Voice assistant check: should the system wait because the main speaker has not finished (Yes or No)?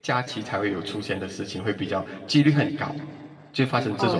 No